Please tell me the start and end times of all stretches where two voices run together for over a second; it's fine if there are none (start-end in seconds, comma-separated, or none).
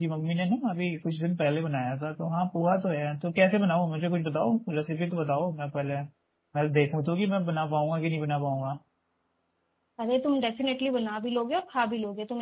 none